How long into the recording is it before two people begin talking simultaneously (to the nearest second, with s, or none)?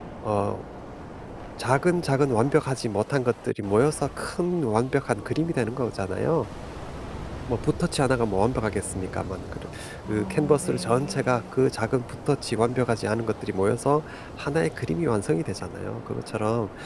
10 s